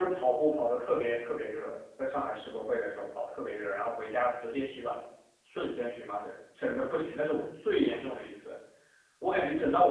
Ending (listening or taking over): listening